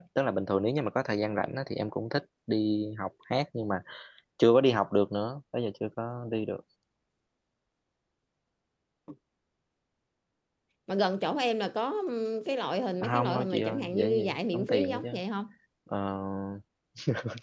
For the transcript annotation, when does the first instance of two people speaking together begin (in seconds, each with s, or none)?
13.0 s